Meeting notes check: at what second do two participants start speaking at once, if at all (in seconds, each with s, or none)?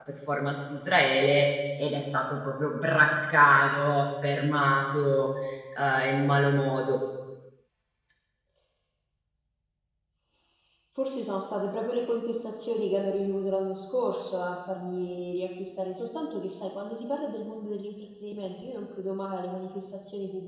none